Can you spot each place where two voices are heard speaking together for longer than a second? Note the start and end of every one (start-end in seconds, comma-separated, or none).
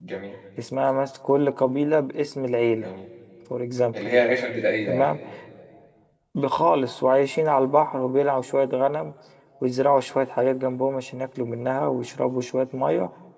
none